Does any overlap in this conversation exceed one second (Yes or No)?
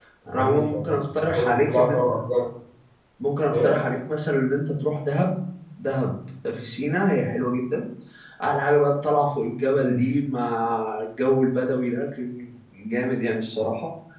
Yes